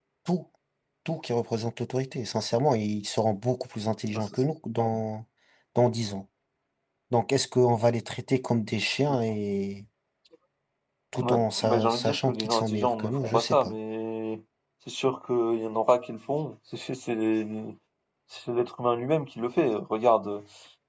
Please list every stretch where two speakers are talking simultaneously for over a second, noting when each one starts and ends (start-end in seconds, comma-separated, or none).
11.2-13.8